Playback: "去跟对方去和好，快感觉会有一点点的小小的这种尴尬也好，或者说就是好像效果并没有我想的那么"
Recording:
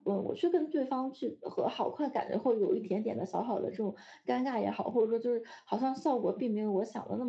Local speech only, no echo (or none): none